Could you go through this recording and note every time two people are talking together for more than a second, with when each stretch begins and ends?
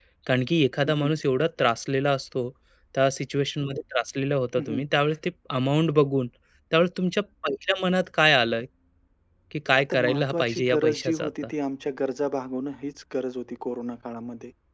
9.9-11.3

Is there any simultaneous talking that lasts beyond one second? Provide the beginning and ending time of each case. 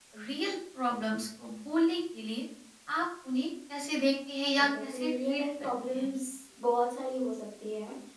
4.6-6.0

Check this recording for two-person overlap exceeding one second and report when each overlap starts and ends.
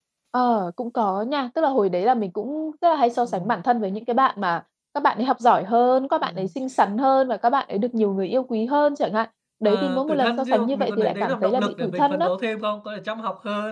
9.6-12.3

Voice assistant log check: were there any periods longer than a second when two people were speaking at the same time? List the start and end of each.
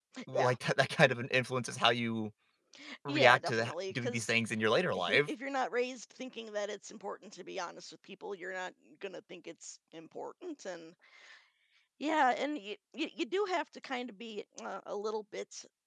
3.1-4.3

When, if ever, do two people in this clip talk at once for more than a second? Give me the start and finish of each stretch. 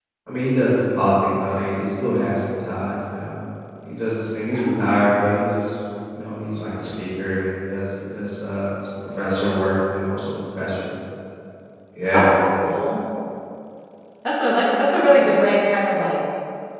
none

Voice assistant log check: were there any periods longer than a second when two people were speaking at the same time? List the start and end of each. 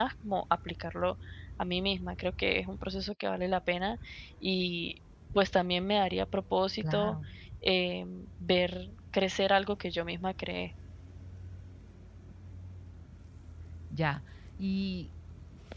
none

